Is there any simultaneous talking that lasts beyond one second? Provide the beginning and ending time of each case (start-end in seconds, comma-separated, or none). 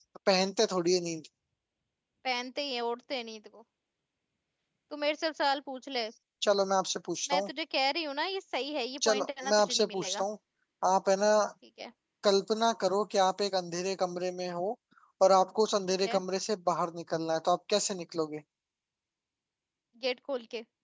9.0-10.2